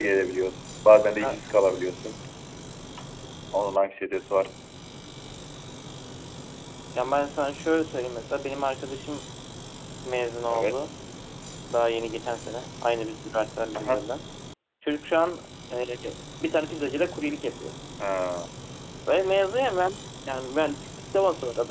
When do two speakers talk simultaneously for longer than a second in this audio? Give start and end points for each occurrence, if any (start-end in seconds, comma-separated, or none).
none